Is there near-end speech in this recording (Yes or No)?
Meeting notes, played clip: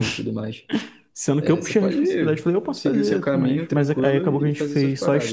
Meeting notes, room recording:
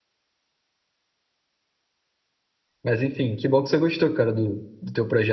Yes